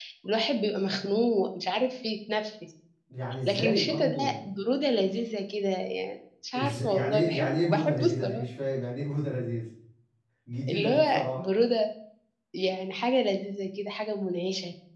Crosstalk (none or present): present